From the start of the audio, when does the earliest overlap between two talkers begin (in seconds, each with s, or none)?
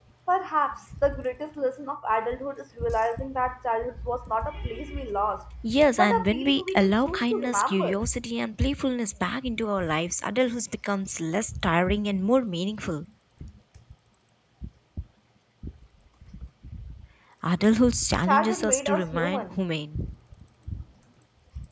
6.0 s